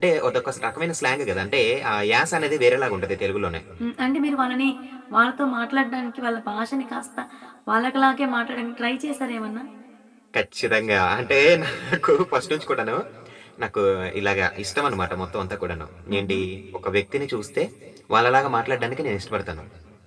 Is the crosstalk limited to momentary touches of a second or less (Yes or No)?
Yes